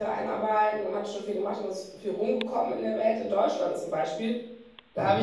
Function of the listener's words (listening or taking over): listening